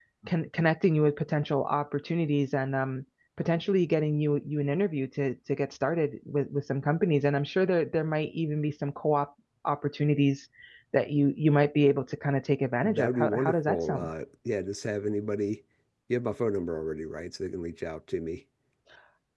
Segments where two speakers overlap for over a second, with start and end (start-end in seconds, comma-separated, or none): 12.8-14.1